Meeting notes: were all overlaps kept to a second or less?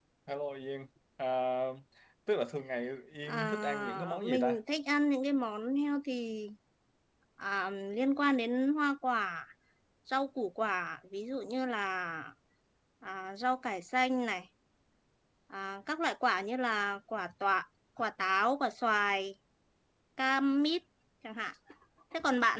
No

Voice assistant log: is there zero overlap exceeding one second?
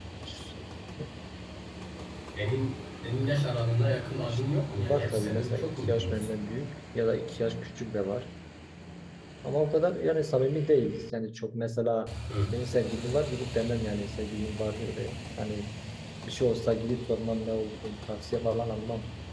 No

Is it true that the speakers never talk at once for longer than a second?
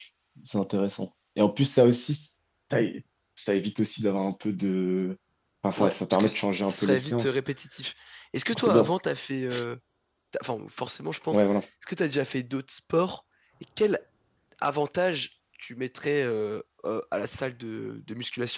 No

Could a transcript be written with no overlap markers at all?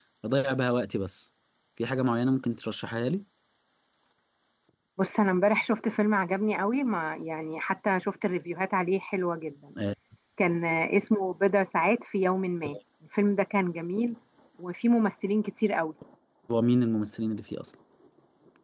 Yes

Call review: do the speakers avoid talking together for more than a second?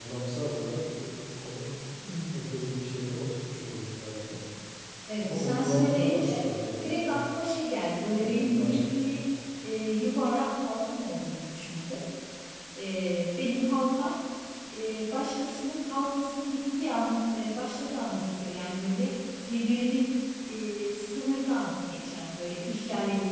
No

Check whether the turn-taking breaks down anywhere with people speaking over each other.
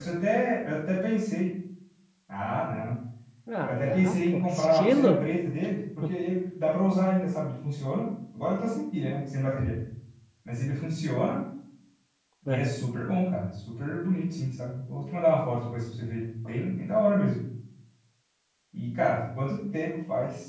Yes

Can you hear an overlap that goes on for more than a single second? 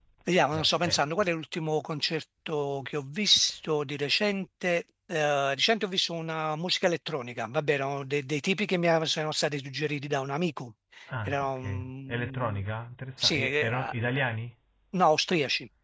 Yes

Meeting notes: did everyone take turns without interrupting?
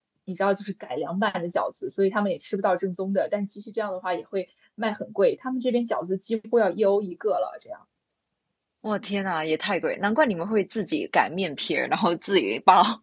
Yes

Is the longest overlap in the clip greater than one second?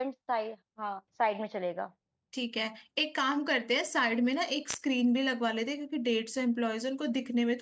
No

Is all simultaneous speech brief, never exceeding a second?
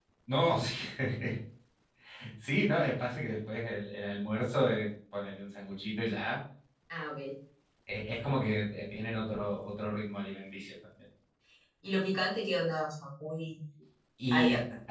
Yes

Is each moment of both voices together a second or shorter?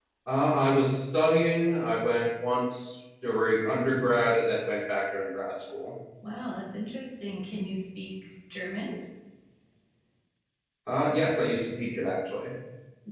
Yes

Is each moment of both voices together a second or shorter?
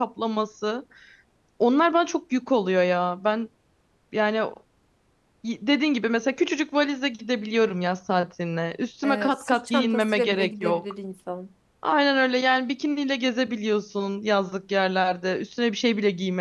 No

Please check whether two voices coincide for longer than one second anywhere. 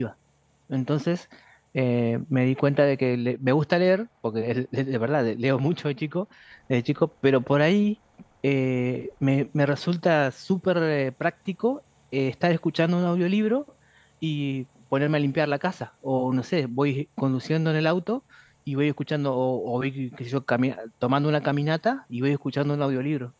No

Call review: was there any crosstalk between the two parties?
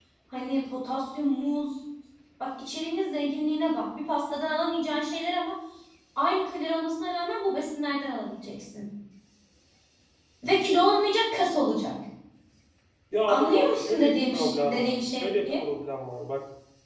Yes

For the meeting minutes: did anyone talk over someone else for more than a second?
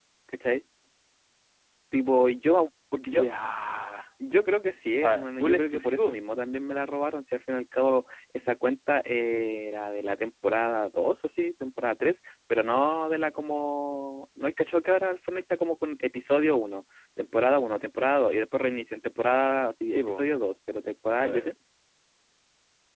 Yes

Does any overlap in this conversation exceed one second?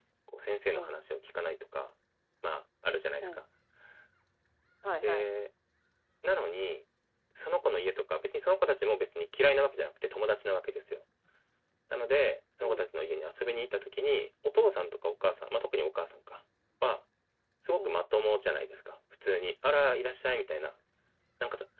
No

